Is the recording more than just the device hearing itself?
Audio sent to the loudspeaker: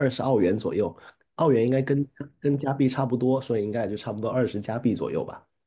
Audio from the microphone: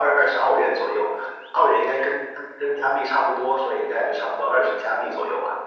No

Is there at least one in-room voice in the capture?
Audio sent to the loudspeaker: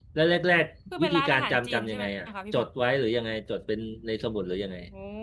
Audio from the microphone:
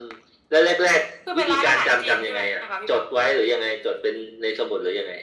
No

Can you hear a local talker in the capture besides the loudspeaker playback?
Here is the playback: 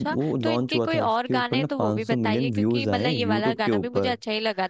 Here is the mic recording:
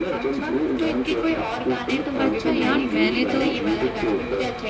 Yes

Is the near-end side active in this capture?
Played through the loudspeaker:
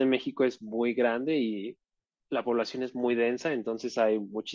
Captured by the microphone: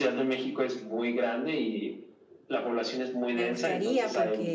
Yes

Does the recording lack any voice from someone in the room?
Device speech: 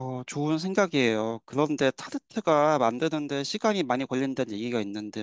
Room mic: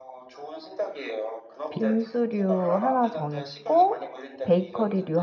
No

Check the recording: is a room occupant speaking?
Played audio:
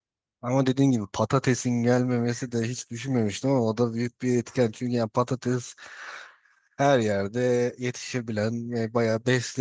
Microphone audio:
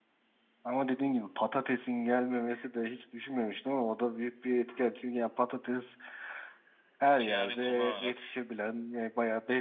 Yes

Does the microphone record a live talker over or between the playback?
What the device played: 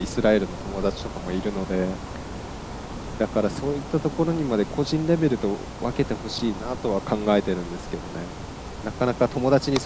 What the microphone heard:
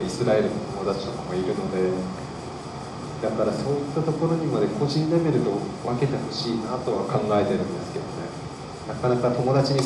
Yes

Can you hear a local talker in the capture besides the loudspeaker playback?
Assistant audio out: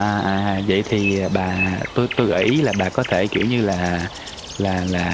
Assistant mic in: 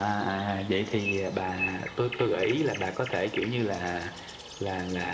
No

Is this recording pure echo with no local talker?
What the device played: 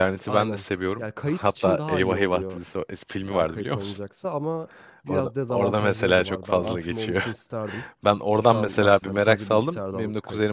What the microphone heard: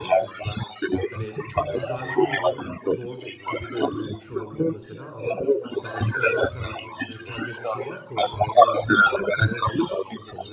No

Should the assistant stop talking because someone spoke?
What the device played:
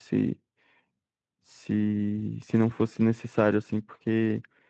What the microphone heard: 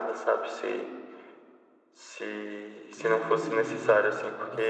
Yes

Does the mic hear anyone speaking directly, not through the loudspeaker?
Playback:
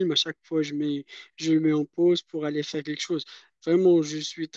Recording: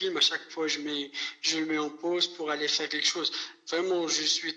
No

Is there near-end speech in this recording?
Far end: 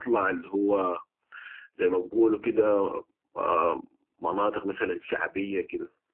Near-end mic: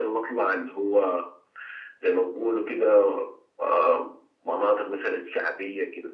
No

